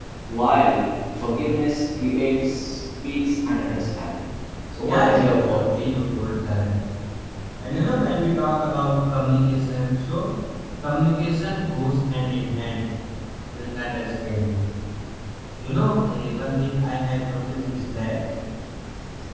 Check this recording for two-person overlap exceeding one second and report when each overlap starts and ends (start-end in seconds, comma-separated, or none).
4.8-6.0